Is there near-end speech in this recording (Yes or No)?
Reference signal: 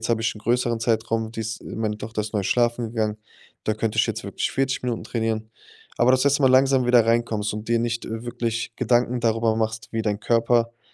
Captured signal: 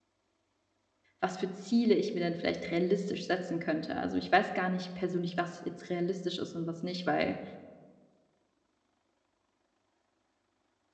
Yes